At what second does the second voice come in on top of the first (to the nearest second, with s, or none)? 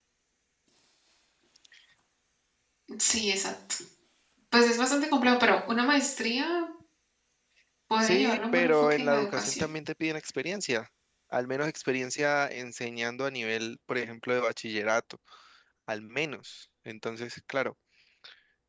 8 s